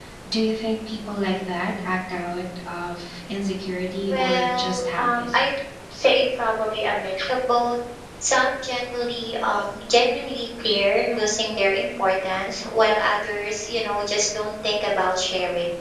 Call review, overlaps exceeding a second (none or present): present